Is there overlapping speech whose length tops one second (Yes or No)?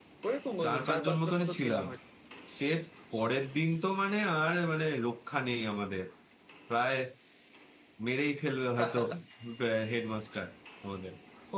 Yes